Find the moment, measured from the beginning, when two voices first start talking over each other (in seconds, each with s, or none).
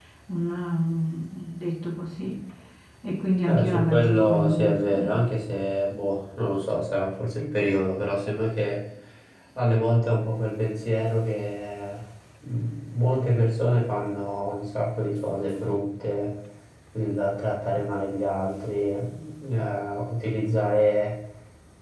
3.5 s